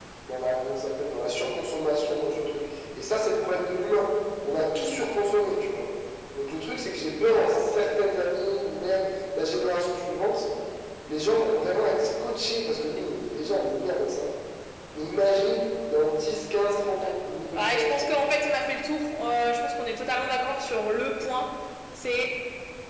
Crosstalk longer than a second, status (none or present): none